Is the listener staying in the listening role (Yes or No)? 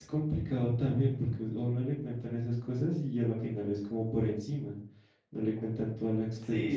No